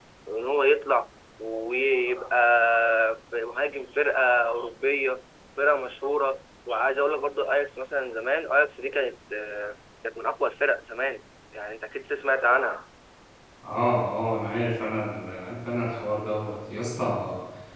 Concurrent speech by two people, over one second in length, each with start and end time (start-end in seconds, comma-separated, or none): none